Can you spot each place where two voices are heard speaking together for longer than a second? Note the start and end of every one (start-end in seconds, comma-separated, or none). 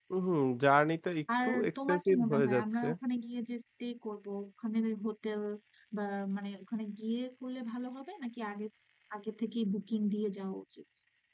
1.4-2.9